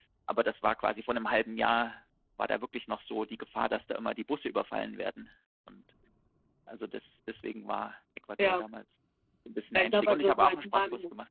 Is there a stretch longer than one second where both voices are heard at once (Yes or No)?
Yes